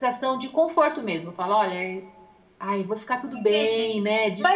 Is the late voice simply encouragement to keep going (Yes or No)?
No